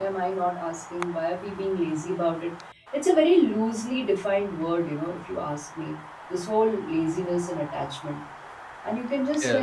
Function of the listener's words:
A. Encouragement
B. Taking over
A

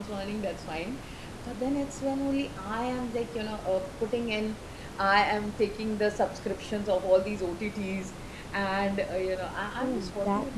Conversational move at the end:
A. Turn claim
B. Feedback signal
A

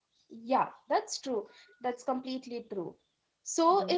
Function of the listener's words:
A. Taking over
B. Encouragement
B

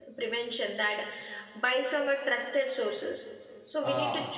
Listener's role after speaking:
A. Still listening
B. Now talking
A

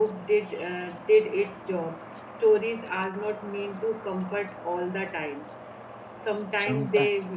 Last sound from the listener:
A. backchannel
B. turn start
A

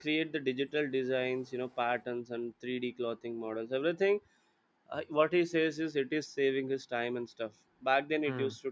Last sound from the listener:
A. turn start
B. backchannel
B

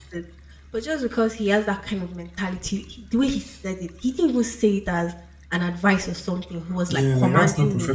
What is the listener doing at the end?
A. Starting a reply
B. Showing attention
A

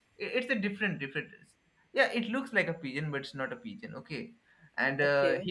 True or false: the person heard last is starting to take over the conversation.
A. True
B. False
B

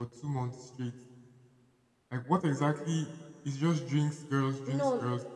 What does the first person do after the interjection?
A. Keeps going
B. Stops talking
B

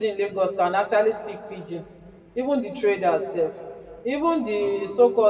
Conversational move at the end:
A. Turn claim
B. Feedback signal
B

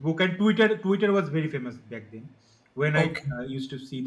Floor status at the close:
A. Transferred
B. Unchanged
B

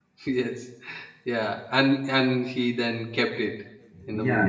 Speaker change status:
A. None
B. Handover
B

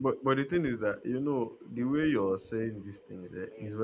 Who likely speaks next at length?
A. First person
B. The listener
A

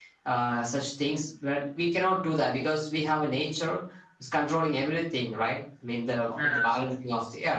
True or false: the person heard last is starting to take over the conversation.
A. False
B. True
A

